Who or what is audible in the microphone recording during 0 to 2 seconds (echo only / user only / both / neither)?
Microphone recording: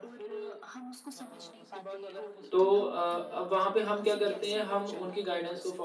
echo only